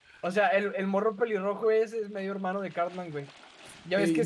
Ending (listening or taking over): listening